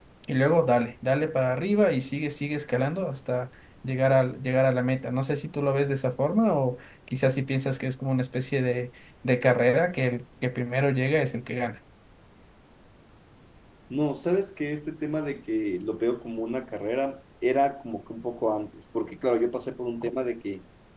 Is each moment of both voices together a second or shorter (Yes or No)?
Yes